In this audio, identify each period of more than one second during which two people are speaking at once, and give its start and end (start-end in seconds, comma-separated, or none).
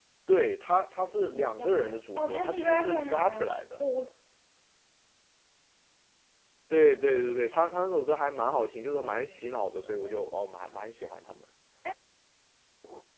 1.3-3.8, 9.0-10.2